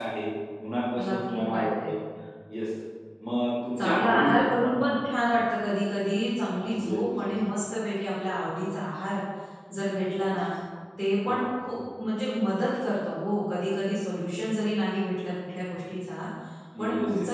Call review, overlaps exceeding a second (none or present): present